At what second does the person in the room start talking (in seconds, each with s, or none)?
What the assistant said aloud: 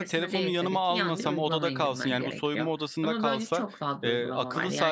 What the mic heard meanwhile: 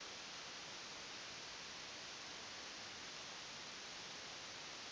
none